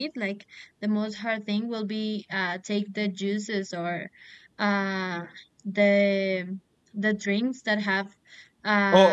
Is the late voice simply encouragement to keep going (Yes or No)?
No